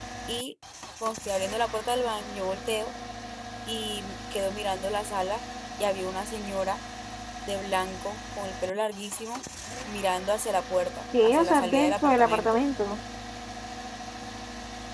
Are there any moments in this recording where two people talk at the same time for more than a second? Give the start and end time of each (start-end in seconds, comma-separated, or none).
11.2-12.6